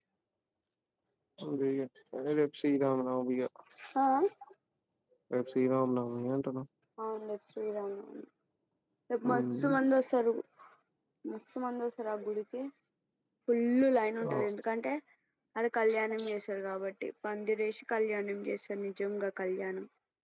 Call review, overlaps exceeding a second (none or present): none